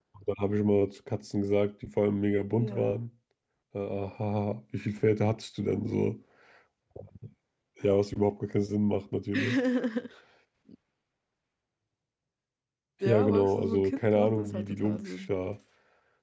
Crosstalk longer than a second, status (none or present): present